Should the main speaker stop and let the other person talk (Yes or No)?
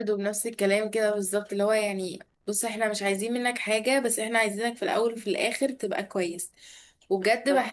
No